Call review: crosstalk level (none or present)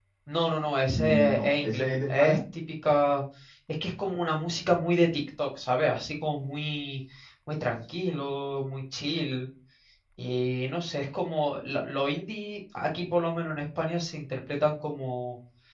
present